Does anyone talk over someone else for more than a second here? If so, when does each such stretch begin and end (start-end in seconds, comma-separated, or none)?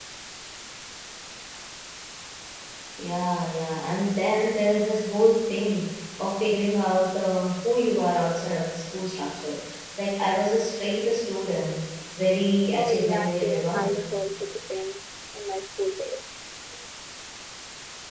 12.8-14.0